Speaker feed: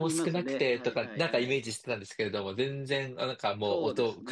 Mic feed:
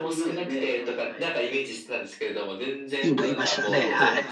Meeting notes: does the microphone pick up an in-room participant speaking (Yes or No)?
Yes